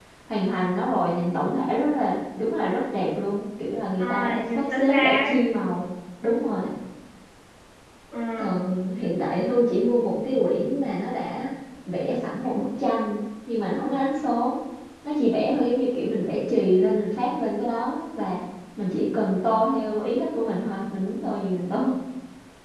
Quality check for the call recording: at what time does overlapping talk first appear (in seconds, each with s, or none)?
4.0 s